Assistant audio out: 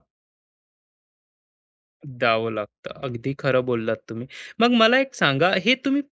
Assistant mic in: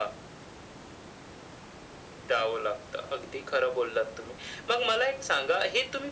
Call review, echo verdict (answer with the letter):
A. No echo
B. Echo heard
B